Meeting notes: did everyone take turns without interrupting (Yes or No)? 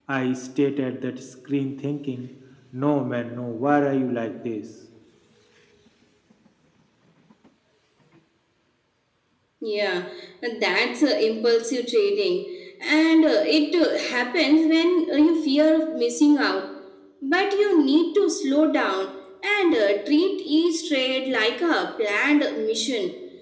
Yes